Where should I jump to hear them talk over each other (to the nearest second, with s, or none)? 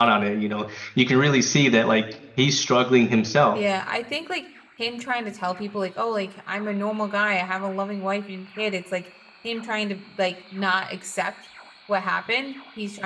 none